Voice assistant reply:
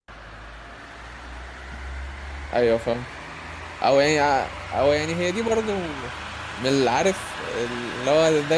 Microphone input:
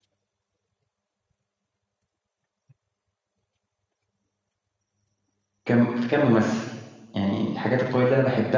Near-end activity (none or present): present